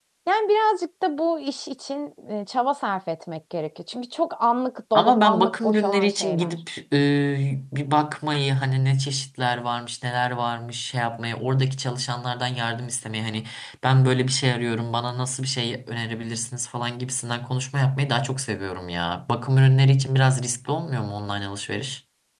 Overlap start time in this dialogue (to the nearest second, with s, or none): 5 s